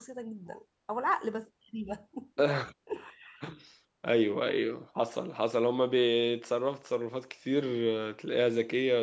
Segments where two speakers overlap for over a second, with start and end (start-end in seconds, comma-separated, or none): none